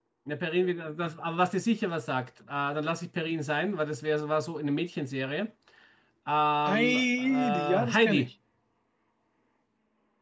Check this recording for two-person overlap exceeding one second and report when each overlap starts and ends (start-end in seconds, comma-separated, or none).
6.7-8.3